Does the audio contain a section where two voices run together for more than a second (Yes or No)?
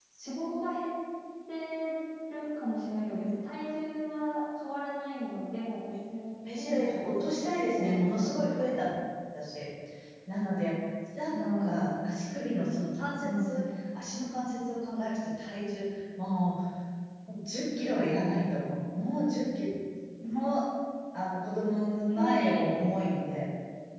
Yes